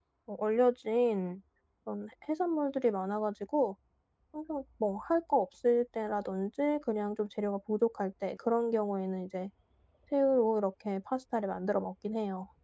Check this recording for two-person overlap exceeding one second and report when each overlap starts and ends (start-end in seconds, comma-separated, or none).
none